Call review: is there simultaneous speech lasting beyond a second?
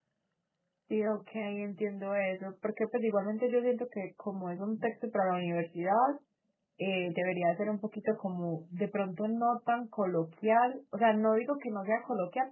No

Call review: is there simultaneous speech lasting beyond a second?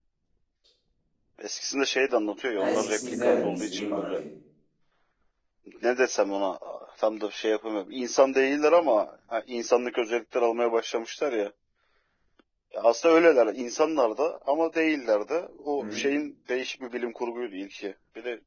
Yes, from 2.6 s

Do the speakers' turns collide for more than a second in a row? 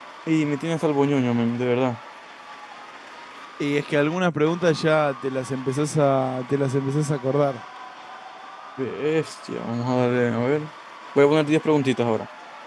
No

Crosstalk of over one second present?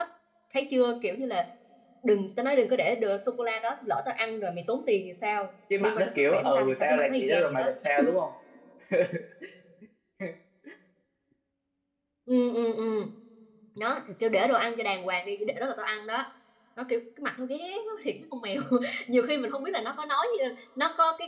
Yes, from 5.7 s

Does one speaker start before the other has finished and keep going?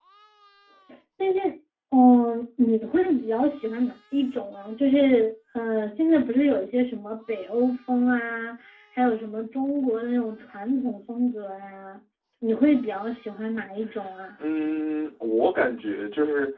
No

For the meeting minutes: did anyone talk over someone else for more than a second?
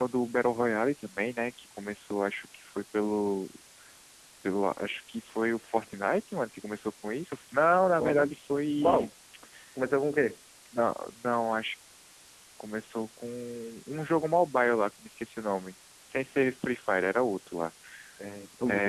No

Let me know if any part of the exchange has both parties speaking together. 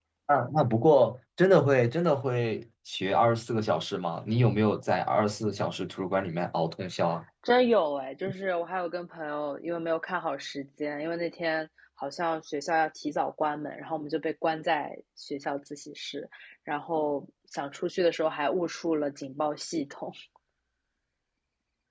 No

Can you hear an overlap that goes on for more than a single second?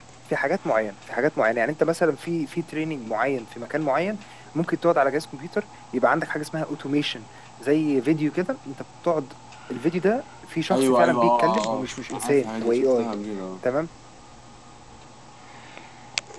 Yes, from 10.7 s

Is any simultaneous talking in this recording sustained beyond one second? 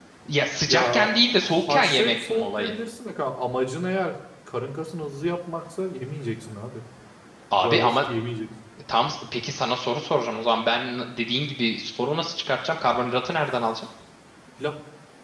Yes, from 0.7 s

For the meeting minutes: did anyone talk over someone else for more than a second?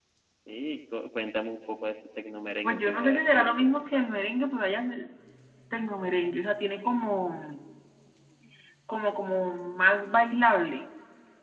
Yes, from 2.6 s

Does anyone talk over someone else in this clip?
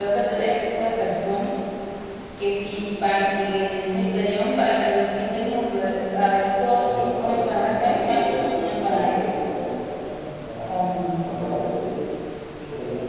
Yes, from 6.8 s

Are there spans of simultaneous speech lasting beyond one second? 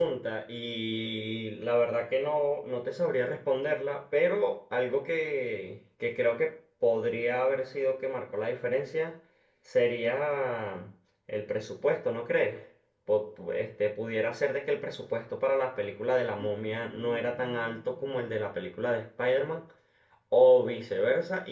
Yes, from 16.4 s

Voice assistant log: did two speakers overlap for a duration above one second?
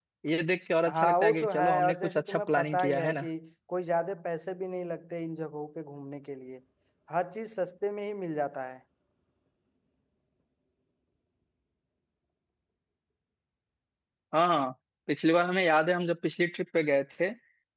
Yes, from 0.9 s

